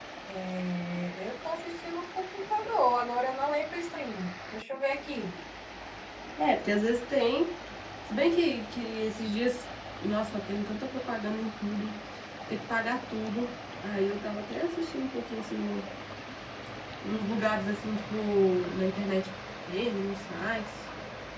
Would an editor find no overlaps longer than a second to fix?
Yes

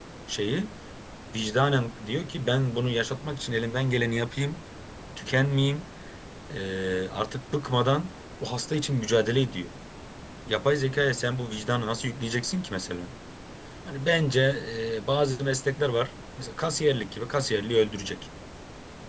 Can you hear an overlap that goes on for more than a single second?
No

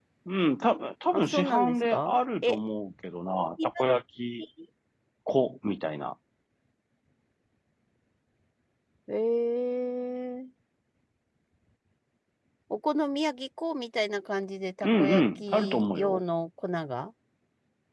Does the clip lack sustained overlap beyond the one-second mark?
No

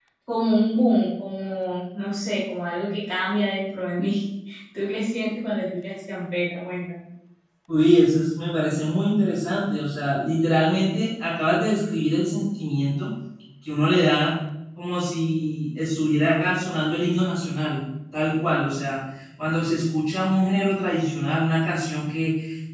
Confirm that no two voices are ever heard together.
Yes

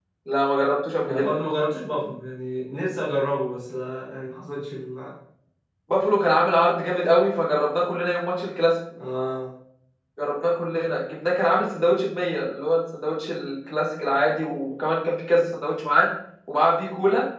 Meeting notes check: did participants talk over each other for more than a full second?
No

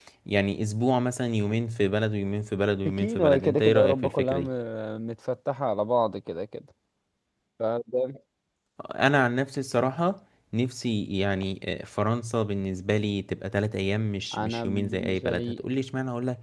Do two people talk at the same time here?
Yes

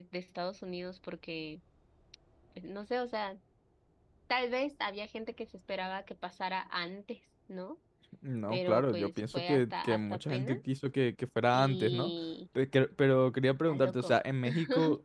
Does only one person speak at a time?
No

